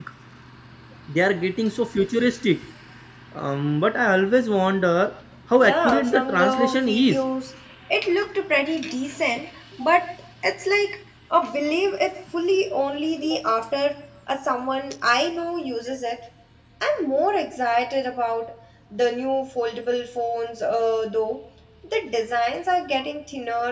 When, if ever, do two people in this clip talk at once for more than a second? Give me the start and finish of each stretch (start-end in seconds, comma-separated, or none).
5.6-7.2